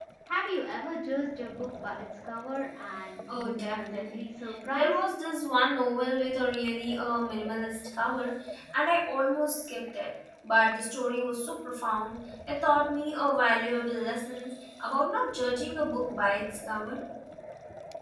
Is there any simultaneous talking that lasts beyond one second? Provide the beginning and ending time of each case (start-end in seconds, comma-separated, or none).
3.3-5.0